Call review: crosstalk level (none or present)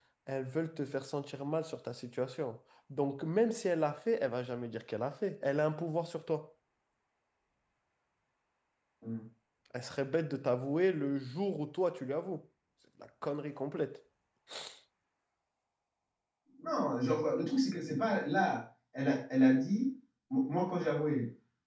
none